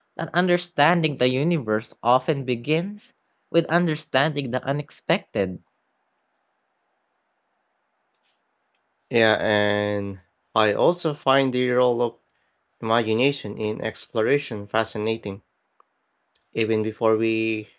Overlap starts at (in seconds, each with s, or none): none